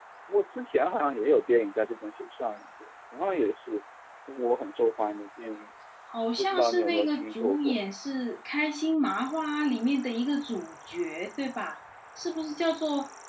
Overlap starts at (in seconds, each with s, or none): 6.4 s